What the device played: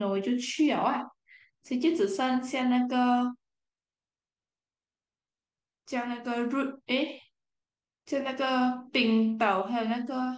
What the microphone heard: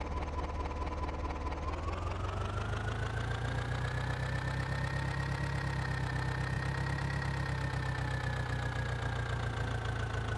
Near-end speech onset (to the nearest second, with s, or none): none